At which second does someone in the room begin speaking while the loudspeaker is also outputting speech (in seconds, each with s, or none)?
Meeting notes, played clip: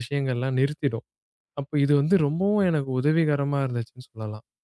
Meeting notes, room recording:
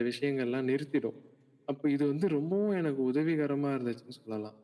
none